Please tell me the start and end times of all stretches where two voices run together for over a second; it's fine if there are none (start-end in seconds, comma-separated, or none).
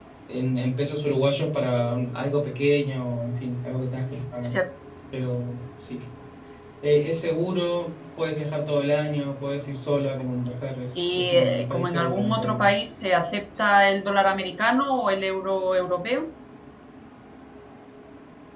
10.9-12.7